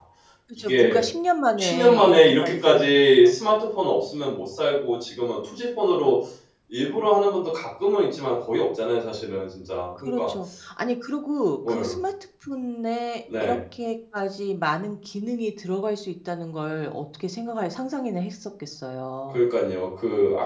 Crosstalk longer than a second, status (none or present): present